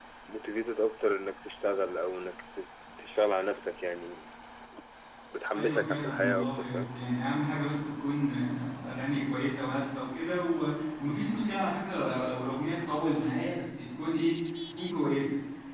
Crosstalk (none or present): present